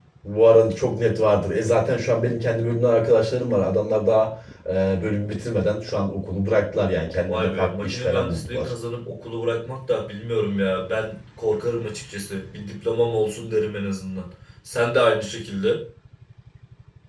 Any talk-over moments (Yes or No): Yes